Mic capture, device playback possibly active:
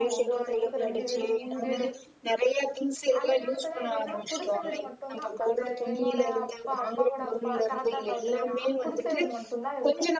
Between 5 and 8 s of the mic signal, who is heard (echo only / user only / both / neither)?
both